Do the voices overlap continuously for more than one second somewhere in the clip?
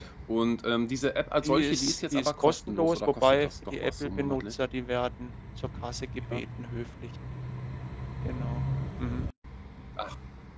Yes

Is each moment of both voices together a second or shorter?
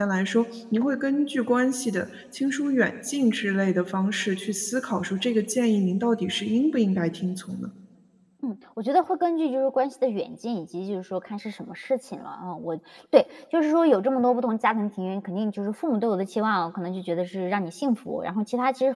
Yes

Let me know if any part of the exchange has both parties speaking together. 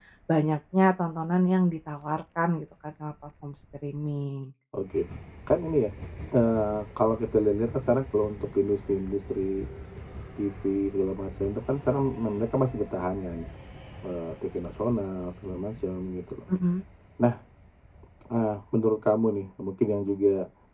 No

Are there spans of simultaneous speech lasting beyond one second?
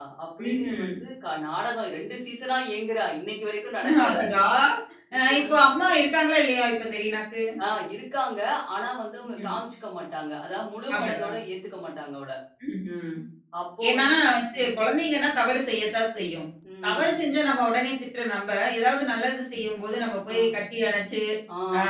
No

